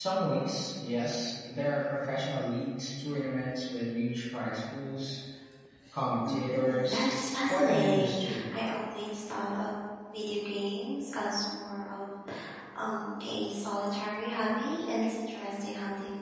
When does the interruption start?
6.2 s

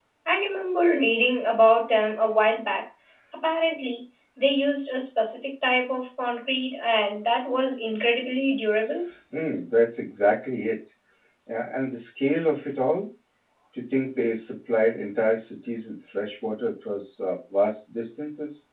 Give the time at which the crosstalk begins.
none

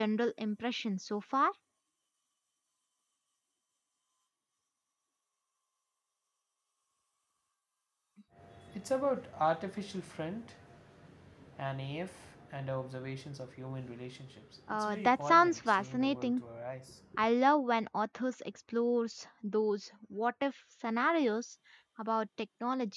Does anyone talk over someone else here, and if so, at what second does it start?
14.7 s

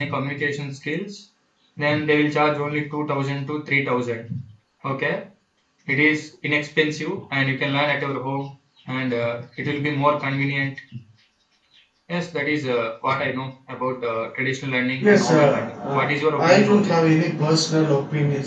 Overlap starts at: 15.0 s

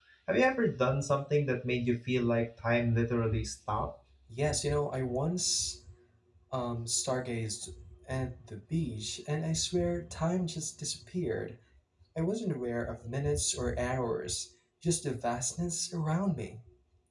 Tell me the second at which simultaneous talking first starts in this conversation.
none

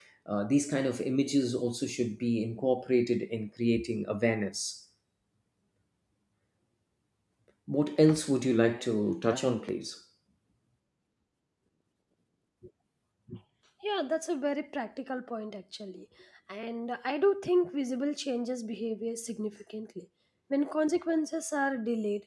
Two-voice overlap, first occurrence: none

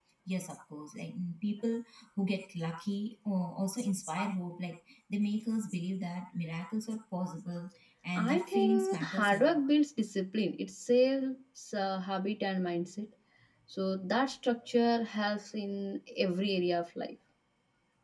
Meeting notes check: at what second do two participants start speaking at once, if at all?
8.2 s

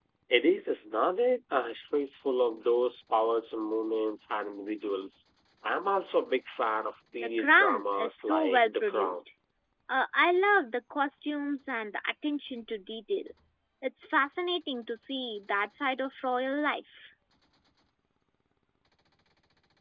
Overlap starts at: 7.2 s

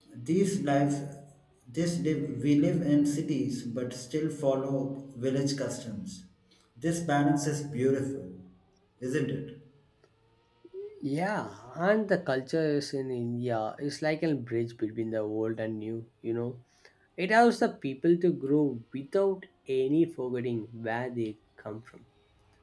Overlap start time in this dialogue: none

